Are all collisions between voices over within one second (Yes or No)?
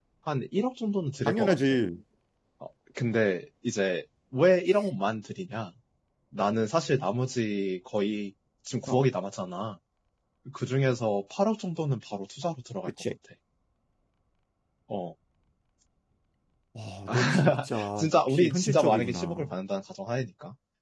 No